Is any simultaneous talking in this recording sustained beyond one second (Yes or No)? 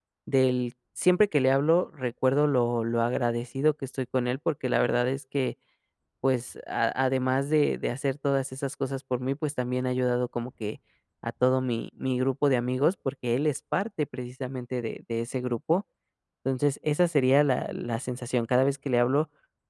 No